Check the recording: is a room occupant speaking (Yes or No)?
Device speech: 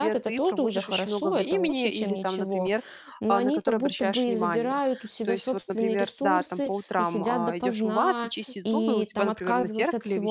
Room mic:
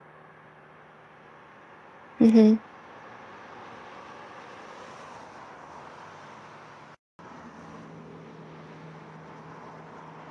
Yes